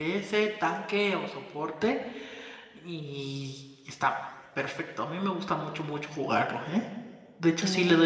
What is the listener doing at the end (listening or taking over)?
listening